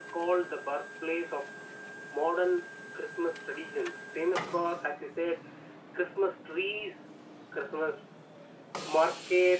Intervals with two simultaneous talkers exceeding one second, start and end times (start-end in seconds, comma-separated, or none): none